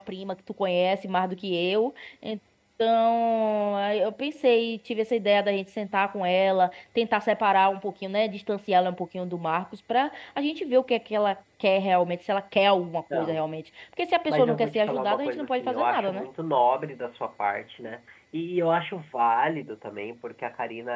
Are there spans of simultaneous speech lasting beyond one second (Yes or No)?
Yes